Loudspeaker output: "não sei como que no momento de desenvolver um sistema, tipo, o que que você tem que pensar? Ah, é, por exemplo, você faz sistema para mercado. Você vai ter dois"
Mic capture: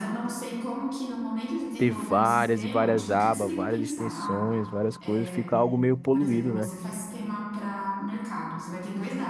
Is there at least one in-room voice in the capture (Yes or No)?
Yes